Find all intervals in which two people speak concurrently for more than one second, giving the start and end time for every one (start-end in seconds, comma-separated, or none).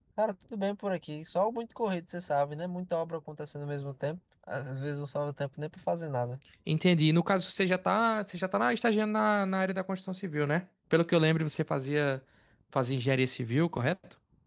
none